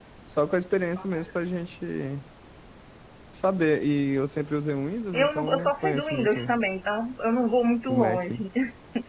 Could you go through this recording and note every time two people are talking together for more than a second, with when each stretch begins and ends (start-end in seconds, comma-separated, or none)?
5.1-6.5